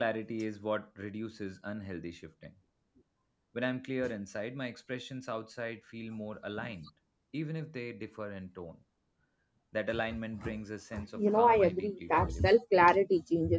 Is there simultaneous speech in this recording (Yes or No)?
Yes